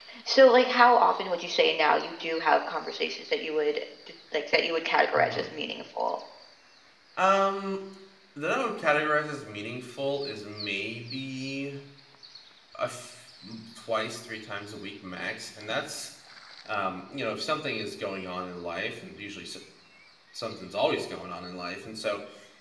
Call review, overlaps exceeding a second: none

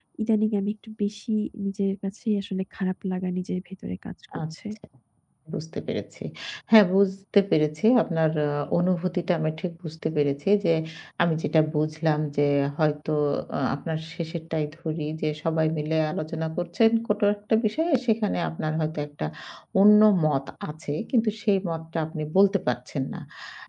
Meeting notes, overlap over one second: none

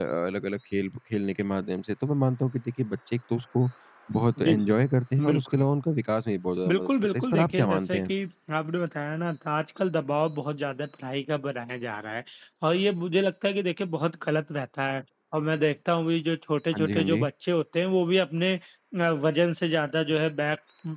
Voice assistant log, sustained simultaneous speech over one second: present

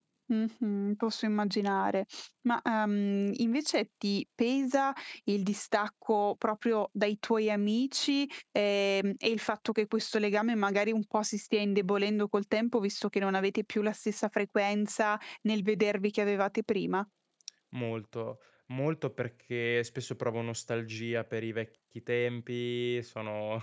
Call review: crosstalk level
none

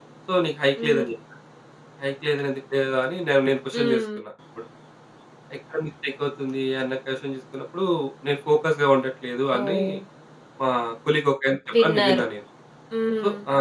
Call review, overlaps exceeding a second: none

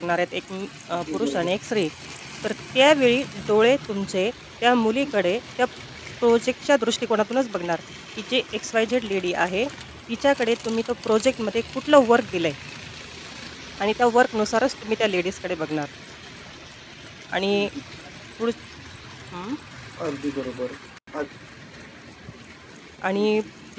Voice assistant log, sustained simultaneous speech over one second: none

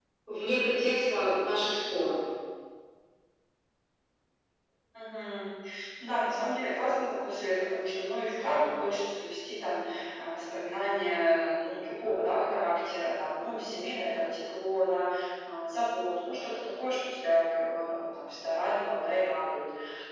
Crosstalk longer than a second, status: none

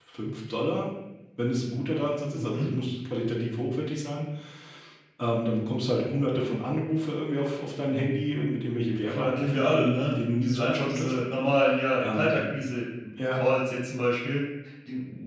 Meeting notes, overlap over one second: present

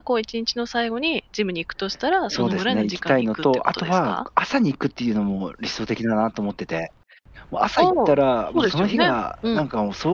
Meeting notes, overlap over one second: present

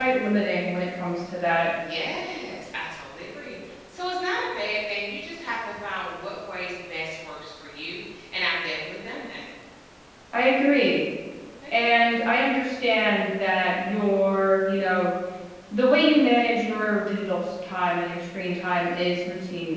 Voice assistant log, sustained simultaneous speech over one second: none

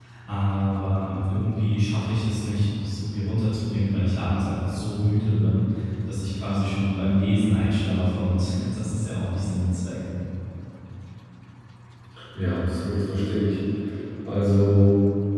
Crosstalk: none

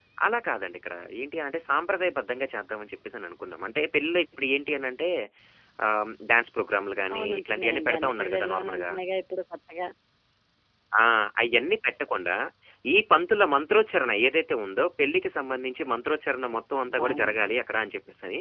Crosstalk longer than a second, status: present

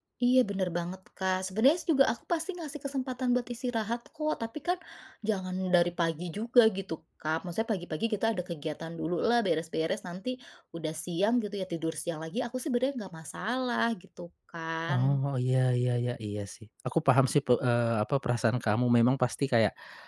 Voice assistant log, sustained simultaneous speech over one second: none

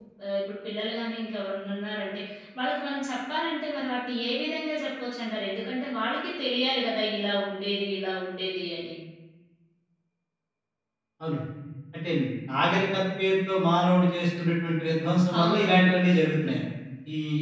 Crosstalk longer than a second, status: none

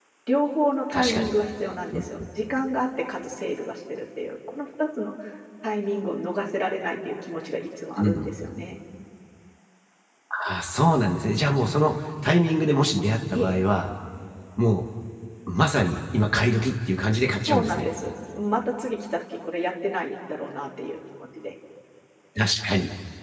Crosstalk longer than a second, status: none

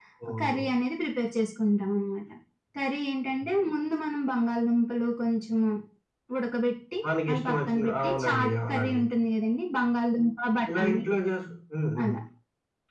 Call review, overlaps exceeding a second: present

